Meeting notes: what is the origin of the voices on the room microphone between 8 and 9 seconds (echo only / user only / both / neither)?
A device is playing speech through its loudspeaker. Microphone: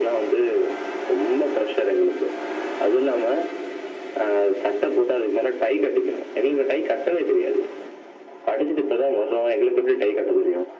echo only